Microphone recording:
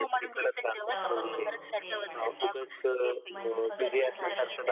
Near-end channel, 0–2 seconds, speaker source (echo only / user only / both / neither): both